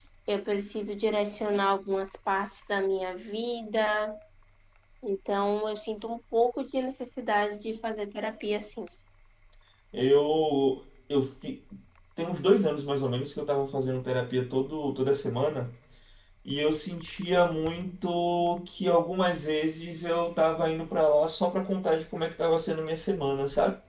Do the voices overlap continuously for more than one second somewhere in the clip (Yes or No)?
No